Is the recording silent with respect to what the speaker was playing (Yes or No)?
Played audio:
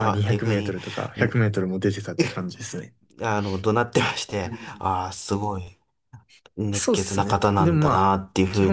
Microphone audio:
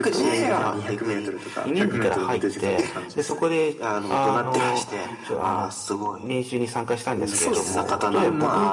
No